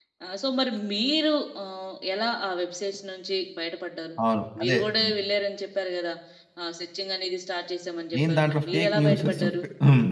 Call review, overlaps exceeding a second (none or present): present